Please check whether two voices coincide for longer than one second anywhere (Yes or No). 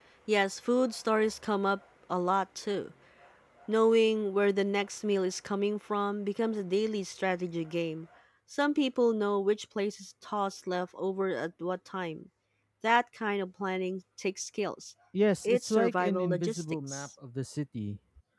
Yes